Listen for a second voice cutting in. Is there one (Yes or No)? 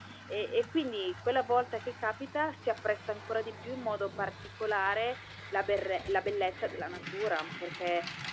No